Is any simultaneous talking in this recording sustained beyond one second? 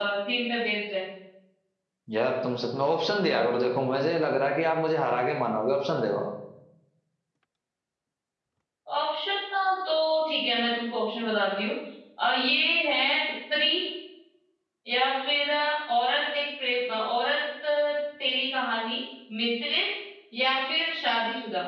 No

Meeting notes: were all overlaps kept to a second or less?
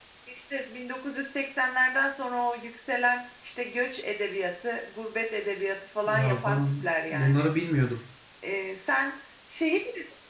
No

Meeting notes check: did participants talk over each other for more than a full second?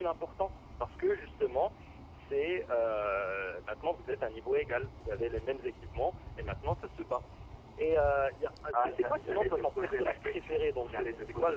Yes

